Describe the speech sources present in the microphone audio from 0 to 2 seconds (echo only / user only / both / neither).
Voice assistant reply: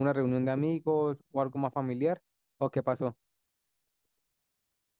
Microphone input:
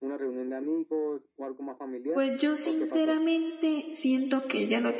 echo only